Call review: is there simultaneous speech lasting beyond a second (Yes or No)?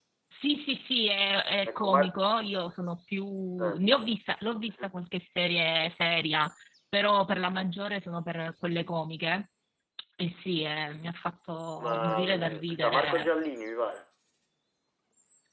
Yes